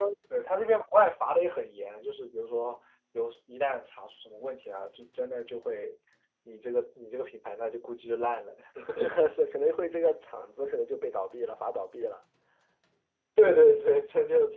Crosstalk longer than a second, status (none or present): none